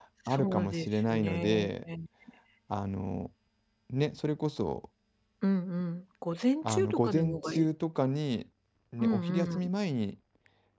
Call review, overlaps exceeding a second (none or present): present